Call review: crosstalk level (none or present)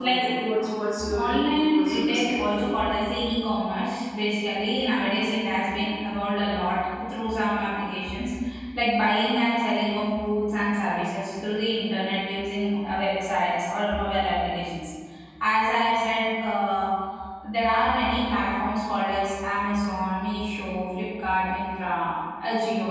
present